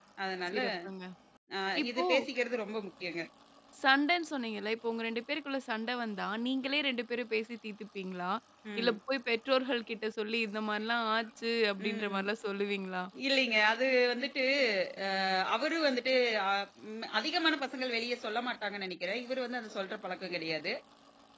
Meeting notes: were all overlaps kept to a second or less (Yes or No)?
Yes